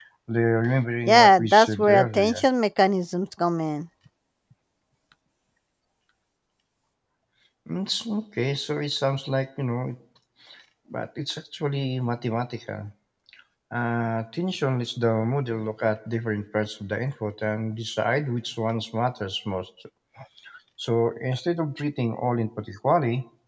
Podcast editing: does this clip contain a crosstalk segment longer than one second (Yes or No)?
Yes